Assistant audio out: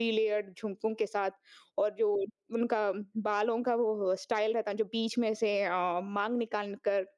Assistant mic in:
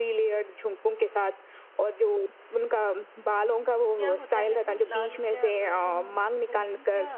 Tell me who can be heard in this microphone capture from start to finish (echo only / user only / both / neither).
both